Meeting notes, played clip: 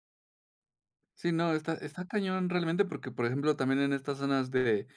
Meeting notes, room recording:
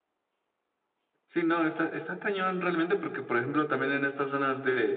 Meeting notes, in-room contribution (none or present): none